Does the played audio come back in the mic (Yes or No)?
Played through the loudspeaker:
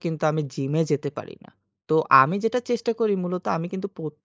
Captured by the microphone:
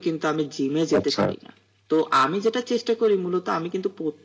Yes